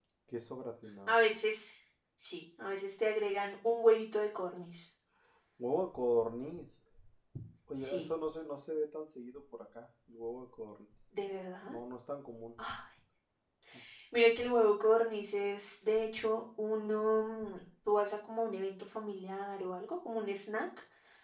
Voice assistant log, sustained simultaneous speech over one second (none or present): none